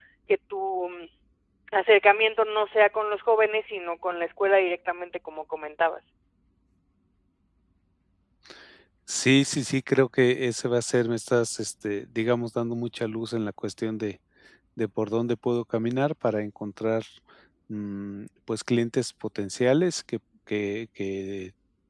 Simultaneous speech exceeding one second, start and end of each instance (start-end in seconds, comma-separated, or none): none